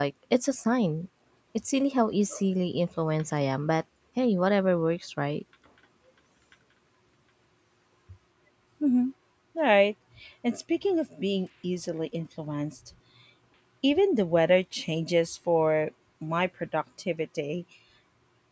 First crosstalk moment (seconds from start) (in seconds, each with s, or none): none